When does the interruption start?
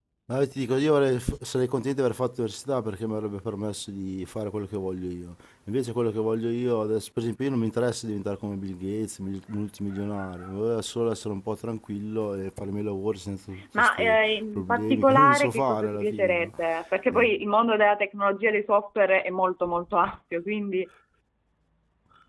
13.7 s

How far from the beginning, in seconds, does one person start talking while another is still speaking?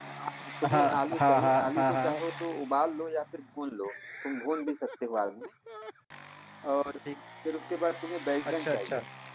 0.7 s

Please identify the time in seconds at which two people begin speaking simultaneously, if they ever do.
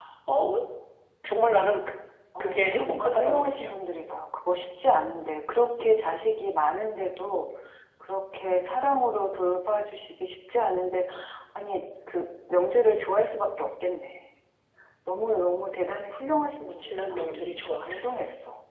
2.4 s

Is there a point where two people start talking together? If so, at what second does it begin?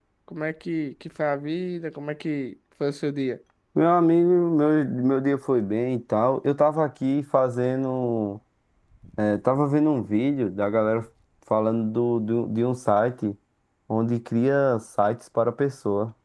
none

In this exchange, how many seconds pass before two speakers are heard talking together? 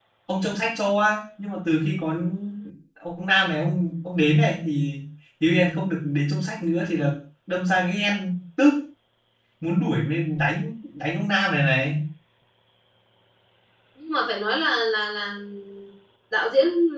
none

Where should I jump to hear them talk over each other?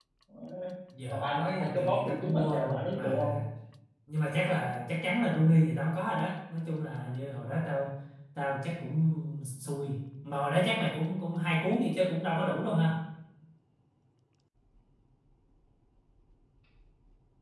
1.1 s

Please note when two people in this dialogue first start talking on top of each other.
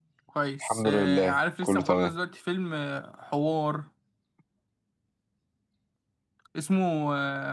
0.6 s

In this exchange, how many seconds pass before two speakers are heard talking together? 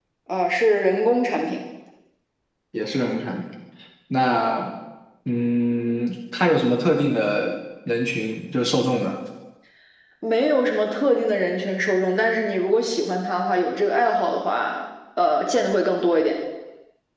none

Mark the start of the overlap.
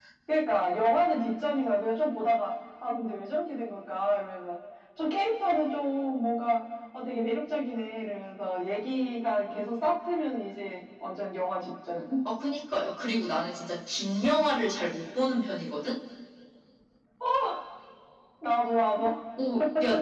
none

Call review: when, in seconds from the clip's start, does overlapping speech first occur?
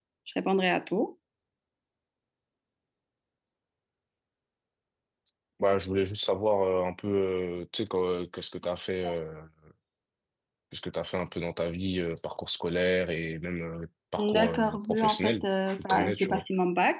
14.2 s

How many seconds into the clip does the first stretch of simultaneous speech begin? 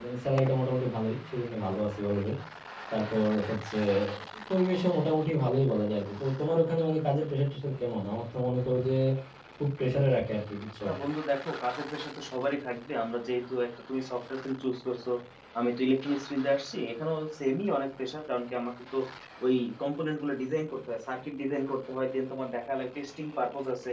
none

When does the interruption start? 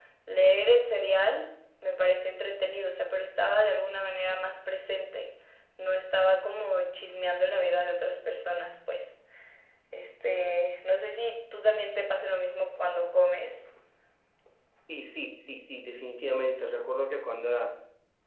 none

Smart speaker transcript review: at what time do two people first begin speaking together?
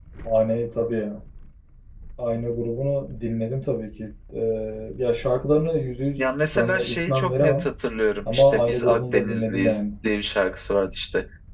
6.2 s

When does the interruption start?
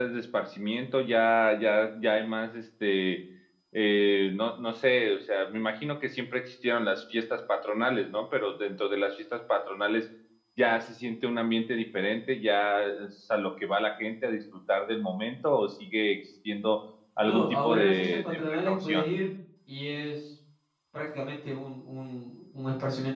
17.2 s

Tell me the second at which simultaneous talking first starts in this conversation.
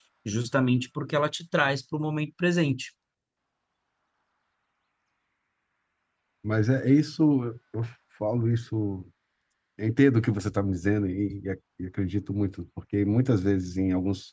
none

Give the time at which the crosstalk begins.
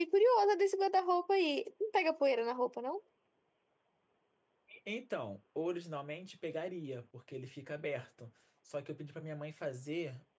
none

